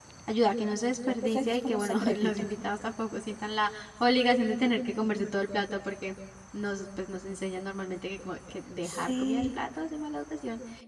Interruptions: present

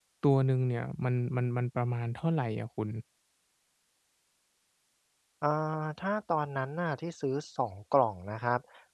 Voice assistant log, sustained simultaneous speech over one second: none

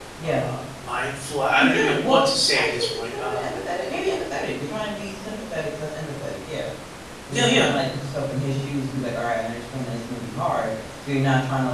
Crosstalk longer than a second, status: present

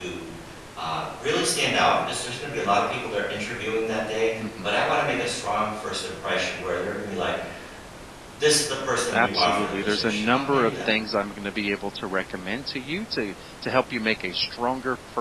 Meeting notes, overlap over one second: present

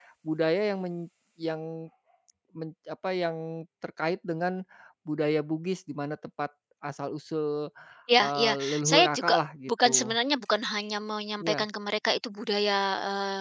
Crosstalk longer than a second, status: present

